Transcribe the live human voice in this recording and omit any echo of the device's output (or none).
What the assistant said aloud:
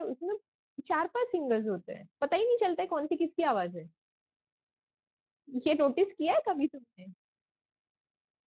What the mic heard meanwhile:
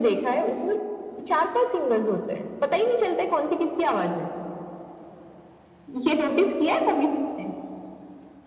none